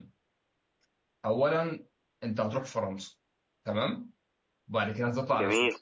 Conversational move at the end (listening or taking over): listening